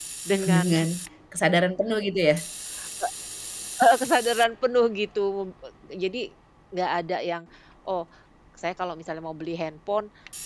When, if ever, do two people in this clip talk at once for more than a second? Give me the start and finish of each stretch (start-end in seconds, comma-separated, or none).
none